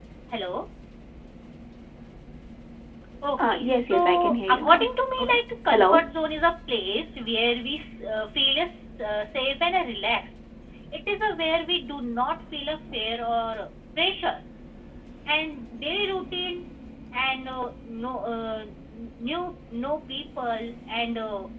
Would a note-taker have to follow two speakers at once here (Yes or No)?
Yes